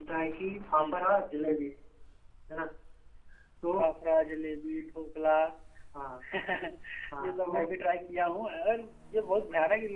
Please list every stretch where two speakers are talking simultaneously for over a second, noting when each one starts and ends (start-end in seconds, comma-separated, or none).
none